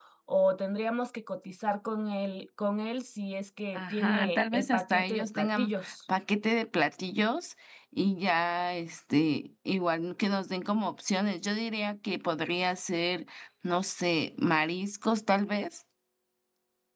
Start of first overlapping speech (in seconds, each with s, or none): 3.8 s